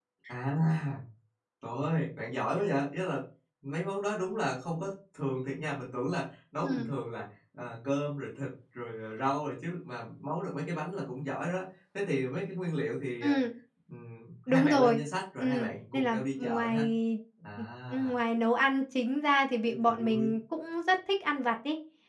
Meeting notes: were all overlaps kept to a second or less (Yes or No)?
No